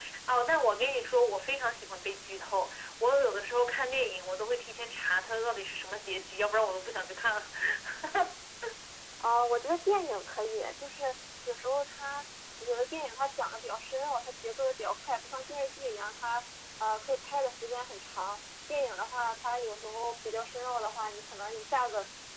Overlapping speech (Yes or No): No